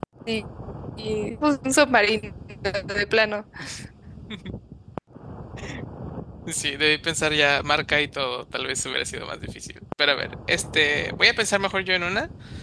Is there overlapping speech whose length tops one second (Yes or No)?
No